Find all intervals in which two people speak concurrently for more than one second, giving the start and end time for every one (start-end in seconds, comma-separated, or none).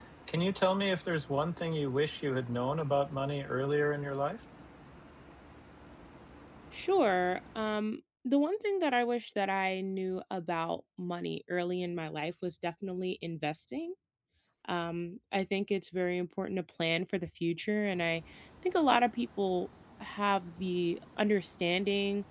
none